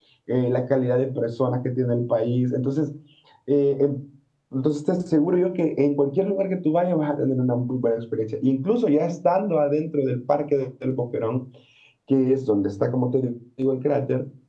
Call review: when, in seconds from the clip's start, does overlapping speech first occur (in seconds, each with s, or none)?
none